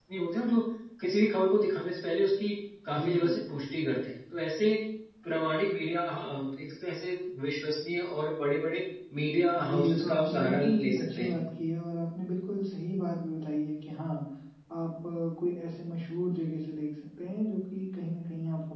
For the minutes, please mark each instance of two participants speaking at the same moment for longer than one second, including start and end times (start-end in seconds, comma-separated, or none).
9.6-11.3